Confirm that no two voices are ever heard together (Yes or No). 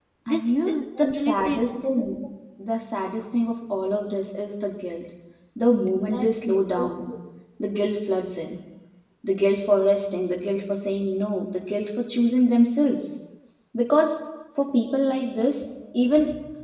No